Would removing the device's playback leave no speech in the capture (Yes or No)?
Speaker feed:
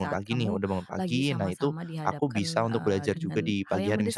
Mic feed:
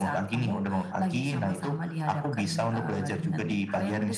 Yes